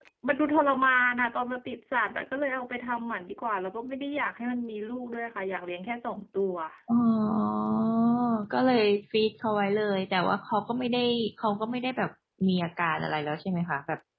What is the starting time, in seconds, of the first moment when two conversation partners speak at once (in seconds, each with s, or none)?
none